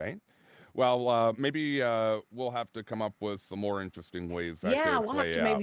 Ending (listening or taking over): taking over